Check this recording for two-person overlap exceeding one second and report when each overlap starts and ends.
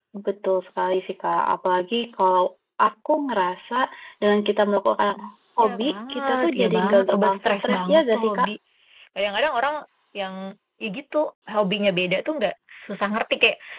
5.6-8.5

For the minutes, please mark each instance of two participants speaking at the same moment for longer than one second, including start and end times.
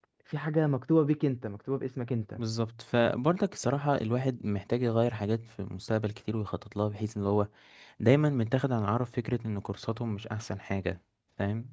none

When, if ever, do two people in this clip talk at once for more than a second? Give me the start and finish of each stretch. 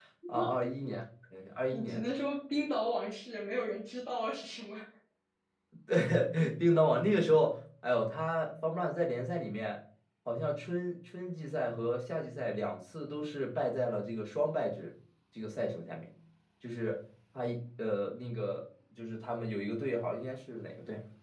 none

